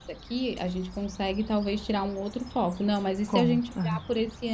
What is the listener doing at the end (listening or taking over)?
listening